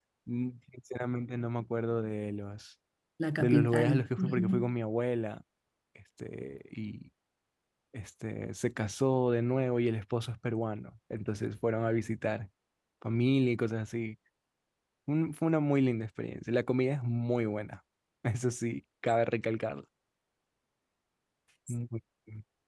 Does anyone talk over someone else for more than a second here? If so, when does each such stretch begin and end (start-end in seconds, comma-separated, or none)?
3.4-4.7